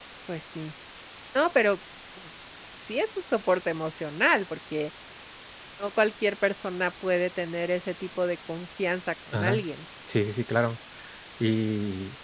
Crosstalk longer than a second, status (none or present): none